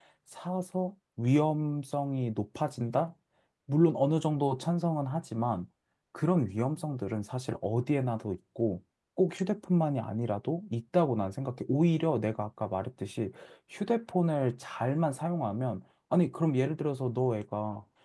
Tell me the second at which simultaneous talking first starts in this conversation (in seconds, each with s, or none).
none